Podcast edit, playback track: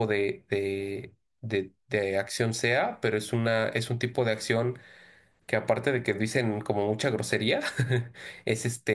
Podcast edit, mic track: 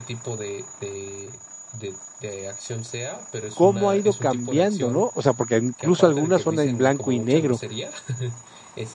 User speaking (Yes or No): Yes